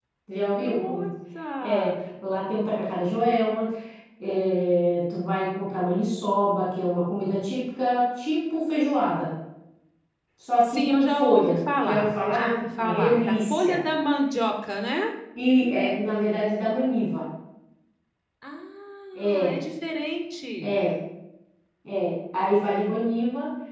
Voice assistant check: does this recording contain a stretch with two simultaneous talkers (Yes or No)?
Yes